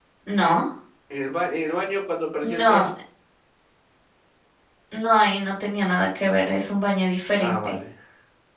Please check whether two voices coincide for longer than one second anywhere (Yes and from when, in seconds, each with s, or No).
No